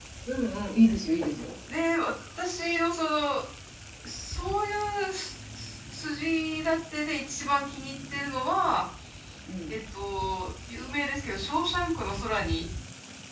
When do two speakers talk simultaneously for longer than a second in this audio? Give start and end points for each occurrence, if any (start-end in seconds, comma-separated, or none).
none